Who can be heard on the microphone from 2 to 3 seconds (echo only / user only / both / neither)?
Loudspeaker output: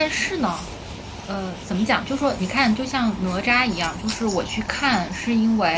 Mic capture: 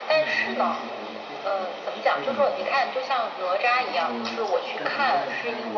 both